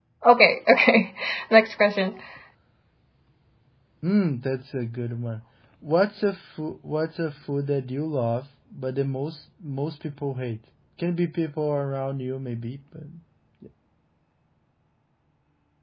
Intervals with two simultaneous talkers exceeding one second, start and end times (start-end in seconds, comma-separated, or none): none